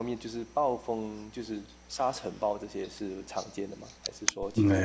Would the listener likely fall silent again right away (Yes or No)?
No